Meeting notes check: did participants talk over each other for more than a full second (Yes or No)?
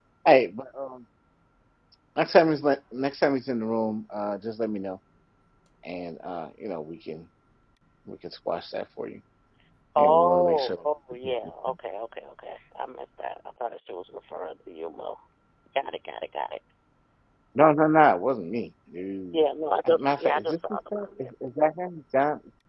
Yes